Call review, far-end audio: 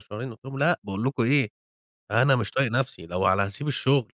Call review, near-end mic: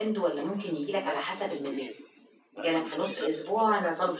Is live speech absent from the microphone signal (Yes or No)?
No